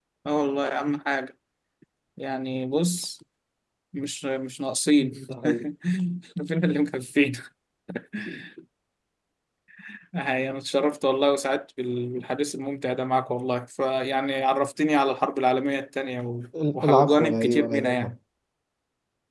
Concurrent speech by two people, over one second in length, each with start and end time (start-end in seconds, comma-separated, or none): 16.9-18.1